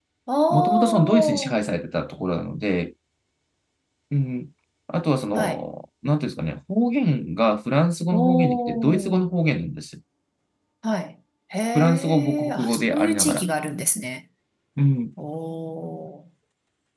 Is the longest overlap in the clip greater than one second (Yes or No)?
Yes